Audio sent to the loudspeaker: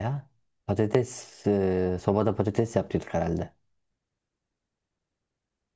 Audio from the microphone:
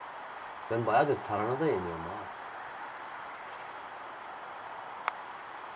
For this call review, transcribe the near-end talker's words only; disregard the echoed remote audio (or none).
Ben bayağıdır tarhana da yemiyorum ha.